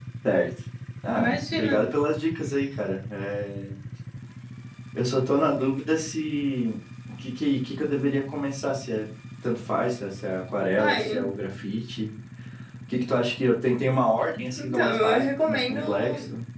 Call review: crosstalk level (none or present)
present